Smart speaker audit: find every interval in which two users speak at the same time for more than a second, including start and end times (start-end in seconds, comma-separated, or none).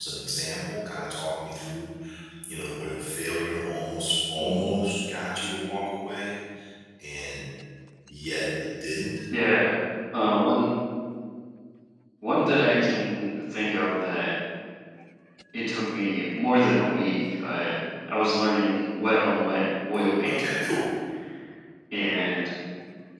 none